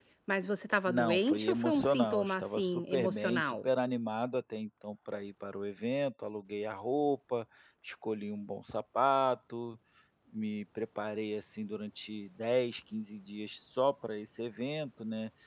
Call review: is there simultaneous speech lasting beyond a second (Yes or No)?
Yes